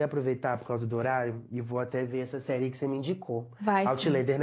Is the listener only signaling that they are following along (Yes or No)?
No